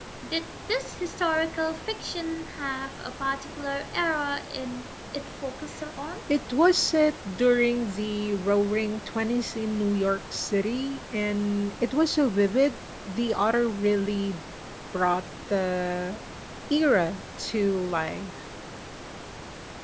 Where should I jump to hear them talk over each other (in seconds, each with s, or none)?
none